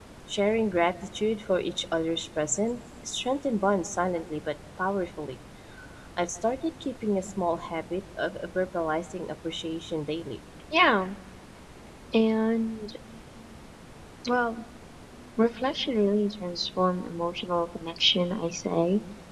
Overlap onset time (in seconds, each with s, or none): none